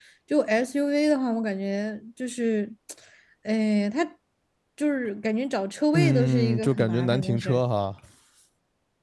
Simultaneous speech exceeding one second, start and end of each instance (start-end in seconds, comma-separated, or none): 5.9-7.6